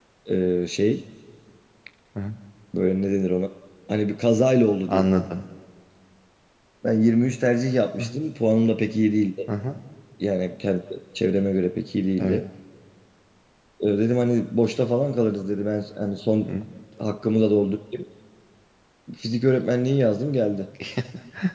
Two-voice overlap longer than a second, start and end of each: none

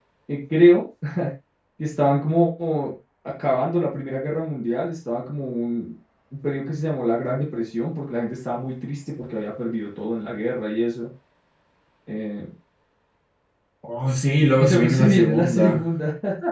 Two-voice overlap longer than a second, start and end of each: 14.6-15.8

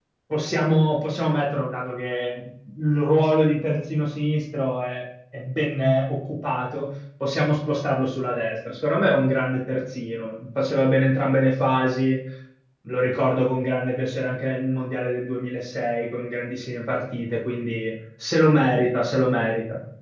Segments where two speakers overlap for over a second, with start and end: none

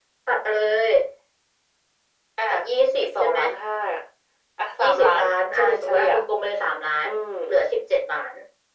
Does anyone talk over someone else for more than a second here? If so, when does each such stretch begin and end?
4.8-6.1

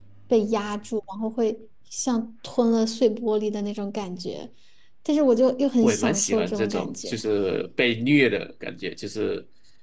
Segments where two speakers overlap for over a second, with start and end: 5.8-7.2

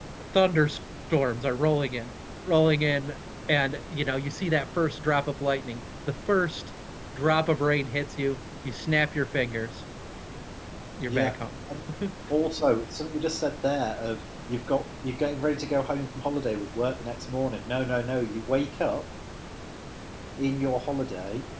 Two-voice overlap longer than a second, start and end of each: none

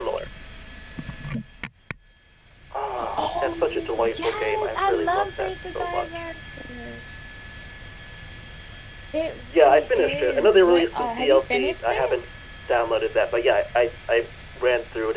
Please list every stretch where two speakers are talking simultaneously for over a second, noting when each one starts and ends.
3.2-6.1, 9.5-12.2

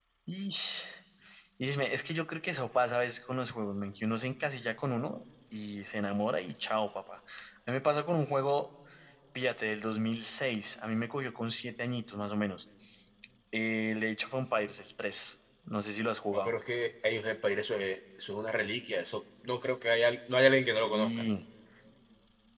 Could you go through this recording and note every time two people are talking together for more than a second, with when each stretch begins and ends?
none

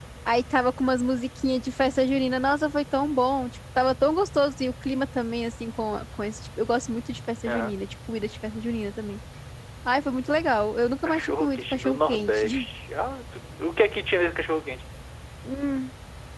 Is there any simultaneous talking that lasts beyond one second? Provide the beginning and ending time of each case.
11.1-12.7

